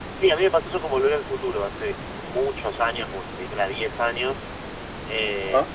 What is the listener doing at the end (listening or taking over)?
listening